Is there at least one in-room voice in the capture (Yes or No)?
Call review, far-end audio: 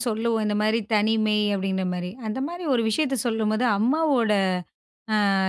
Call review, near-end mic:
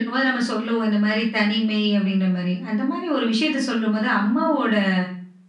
No